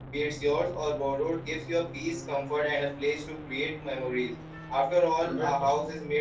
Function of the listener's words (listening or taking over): listening